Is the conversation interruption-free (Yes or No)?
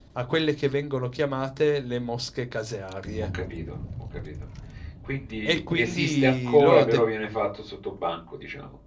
No